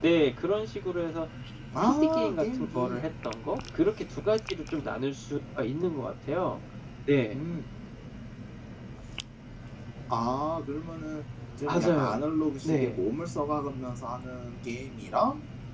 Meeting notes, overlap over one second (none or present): present